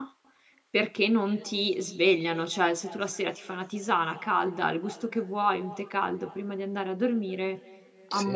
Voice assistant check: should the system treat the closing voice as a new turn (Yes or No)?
No